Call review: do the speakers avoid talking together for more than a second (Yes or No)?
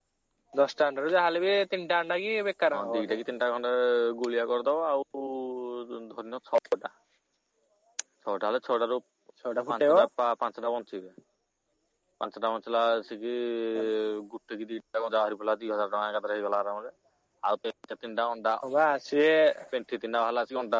Yes